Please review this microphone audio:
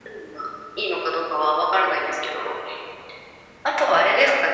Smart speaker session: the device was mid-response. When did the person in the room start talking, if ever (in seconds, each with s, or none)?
none